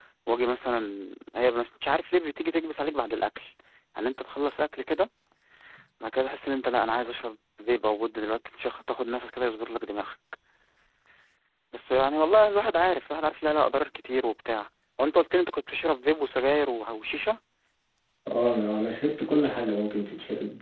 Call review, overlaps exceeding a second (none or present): none